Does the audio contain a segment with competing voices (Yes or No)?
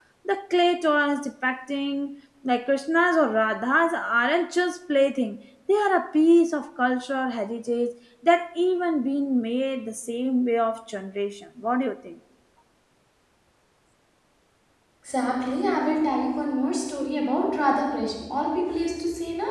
No